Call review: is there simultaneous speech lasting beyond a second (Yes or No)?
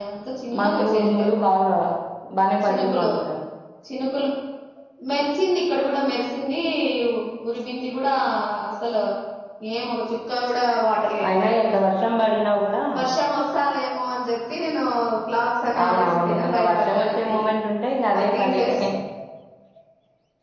Yes